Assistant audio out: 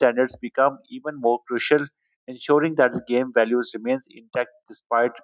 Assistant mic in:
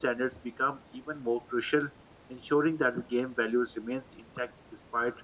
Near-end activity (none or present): none